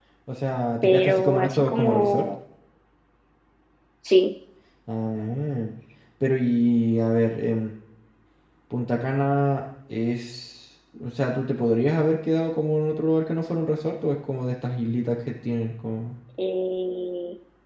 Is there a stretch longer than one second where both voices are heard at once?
Yes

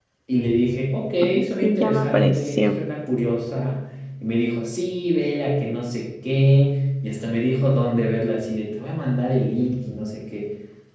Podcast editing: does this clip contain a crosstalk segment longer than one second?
Yes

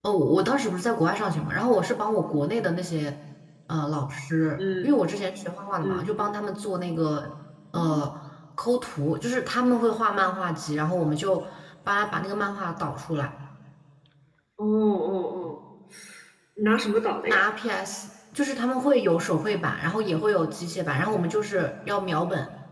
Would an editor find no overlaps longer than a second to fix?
Yes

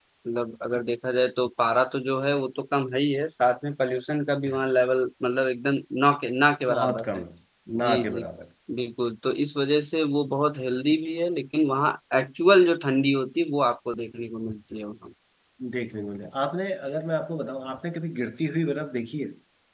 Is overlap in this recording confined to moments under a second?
Yes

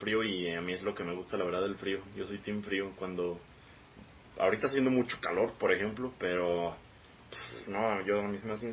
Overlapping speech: No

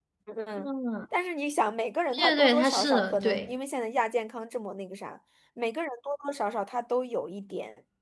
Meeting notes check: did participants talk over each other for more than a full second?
Yes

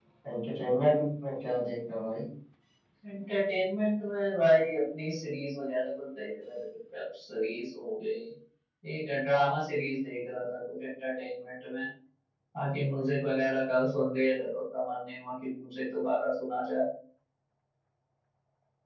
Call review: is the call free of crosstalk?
Yes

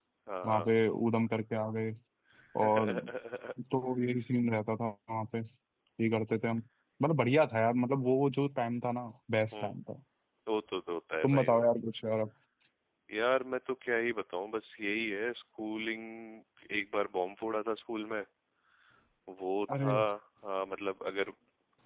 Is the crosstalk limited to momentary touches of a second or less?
Yes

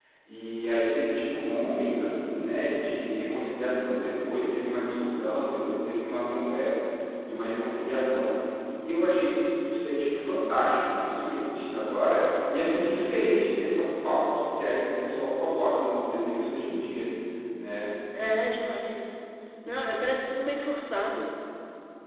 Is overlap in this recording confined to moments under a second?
Yes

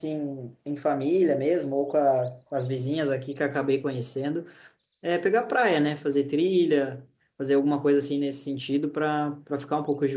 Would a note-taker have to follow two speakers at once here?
No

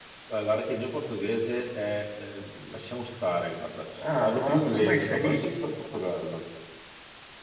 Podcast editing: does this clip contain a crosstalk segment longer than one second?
Yes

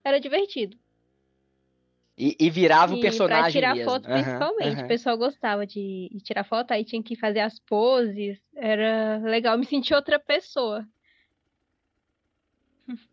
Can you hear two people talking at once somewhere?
Yes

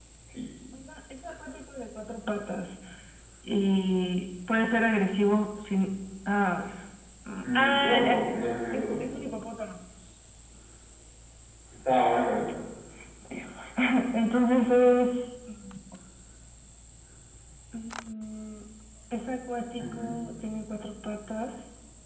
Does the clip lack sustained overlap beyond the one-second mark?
No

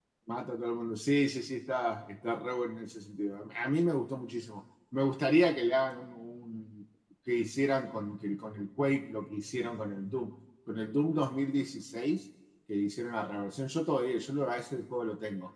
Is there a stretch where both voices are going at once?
No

